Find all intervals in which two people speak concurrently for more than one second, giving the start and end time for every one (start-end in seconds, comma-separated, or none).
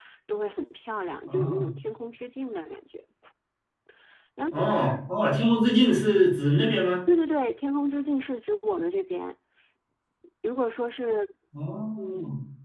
none